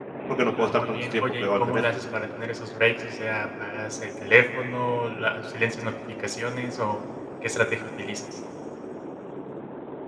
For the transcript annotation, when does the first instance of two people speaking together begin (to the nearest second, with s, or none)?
1 s